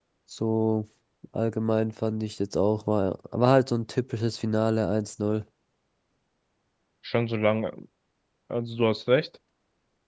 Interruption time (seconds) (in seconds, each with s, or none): none